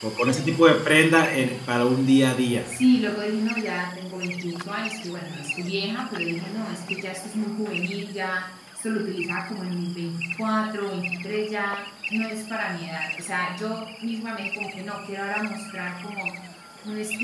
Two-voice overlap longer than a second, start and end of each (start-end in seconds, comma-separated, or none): none